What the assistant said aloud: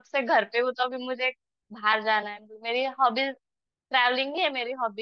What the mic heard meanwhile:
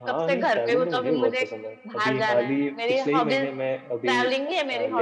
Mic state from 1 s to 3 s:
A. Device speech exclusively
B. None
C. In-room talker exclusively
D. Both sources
D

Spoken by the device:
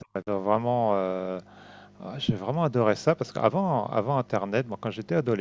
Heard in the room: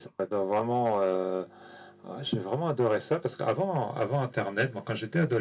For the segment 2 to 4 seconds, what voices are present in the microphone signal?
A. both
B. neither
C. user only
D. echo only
D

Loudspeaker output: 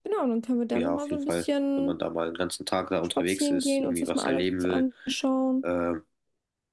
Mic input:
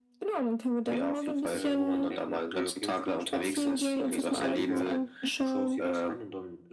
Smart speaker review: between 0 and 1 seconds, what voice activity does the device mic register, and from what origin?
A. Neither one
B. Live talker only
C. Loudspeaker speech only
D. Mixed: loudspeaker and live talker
C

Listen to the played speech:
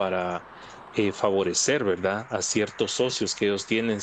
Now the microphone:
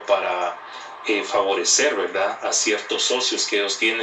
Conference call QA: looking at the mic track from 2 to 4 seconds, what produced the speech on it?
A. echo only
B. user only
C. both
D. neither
A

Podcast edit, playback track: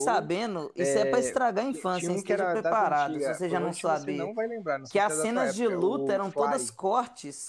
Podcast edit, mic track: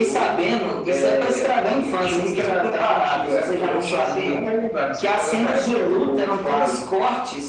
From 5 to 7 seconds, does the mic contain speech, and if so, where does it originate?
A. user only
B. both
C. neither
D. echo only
D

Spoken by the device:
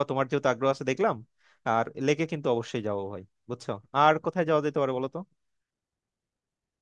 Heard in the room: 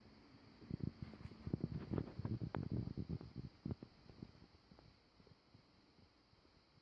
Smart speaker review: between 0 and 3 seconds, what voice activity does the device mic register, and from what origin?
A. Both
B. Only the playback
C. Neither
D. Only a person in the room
C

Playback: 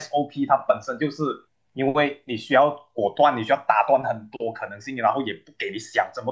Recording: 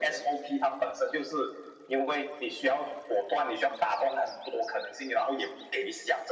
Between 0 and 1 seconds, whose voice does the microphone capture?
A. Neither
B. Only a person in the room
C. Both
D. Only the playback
D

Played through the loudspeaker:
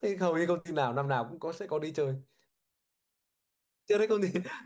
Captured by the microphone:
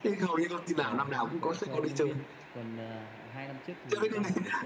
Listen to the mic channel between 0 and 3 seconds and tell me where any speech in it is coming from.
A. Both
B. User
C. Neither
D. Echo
A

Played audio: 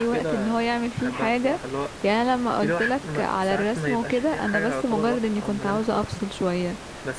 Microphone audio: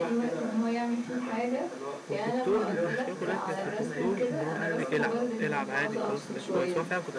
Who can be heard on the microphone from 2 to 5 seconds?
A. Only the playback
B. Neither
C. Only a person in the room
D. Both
D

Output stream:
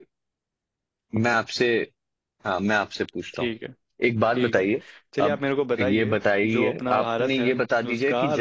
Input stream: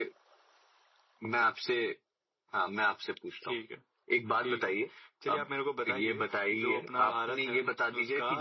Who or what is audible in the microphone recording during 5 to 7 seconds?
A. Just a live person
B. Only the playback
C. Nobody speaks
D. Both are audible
B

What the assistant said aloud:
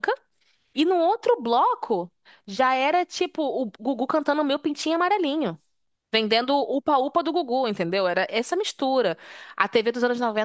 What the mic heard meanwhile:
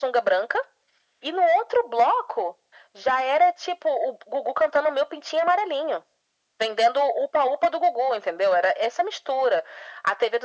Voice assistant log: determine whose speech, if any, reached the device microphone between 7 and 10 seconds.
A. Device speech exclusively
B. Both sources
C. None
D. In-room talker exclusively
A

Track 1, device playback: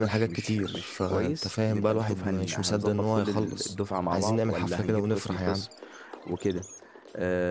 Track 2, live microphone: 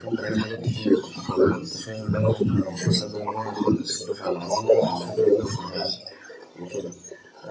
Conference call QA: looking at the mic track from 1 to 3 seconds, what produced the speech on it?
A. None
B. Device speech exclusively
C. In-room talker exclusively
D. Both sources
B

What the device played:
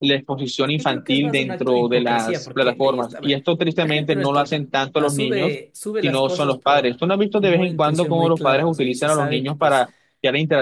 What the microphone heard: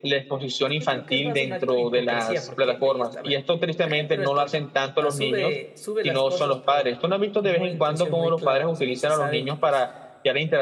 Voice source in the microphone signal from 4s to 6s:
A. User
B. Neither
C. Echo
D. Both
C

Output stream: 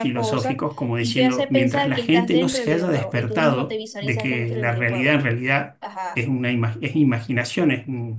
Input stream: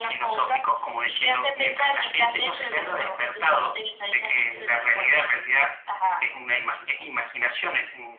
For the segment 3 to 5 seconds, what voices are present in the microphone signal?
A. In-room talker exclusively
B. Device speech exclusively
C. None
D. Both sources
B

